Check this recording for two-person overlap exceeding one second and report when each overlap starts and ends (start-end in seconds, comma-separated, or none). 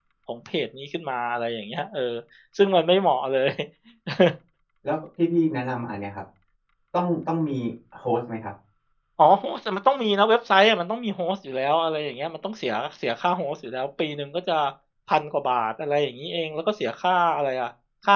none